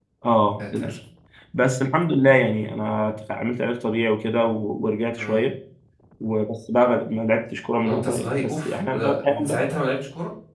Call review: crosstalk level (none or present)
present